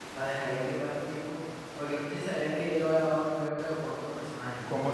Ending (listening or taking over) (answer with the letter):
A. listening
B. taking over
B